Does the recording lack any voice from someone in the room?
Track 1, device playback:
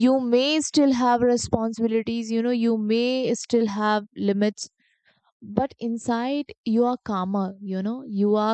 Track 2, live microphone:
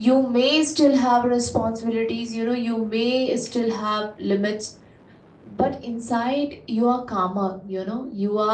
Yes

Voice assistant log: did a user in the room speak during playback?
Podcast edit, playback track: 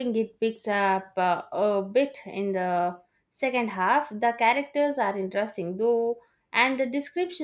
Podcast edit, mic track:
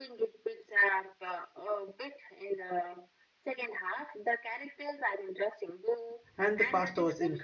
Yes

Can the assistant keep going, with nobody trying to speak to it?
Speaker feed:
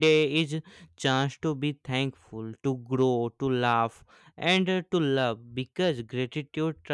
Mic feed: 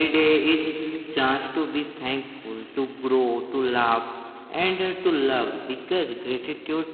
Yes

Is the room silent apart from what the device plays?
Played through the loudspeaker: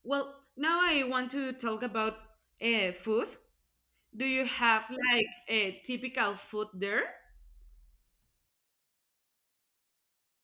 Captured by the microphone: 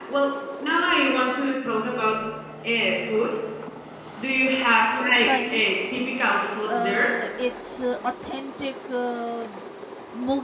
No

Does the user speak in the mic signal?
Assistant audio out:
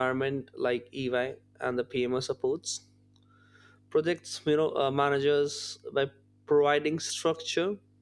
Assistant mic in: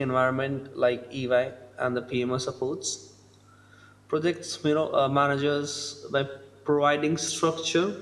No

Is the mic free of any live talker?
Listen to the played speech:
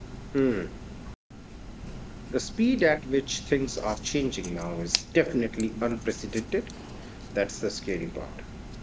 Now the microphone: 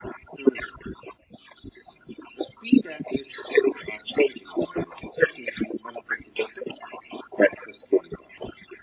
Yes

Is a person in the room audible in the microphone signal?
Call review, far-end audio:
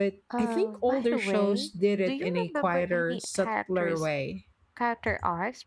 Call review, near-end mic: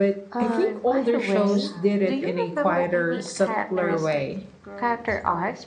Yes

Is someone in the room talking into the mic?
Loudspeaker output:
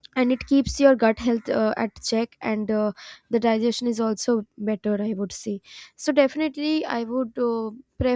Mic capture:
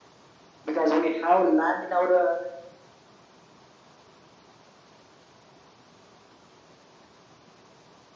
Yes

